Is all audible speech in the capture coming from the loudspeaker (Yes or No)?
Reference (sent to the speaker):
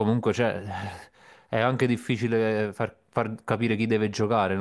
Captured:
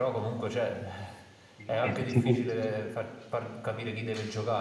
No